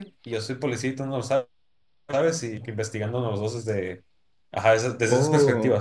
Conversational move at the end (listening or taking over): listening